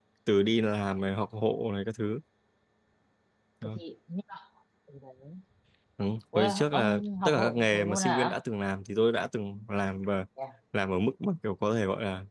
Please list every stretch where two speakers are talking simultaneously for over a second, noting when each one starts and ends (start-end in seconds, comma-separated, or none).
6.4-8.4